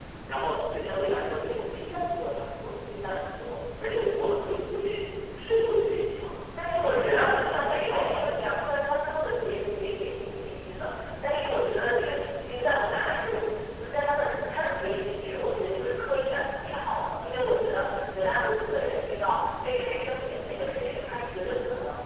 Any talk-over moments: Yes, from 6.6 s

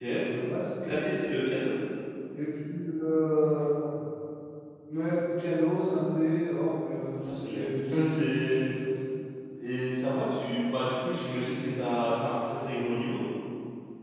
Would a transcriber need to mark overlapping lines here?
Yes, from 7.1 s

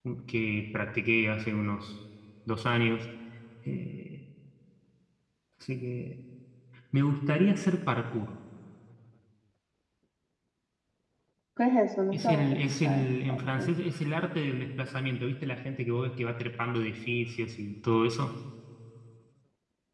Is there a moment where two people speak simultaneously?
Yes, from 12.1 s

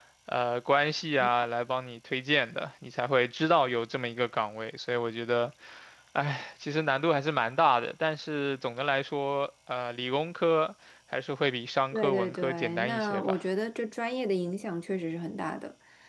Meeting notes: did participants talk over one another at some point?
Yes, from 11.9 s

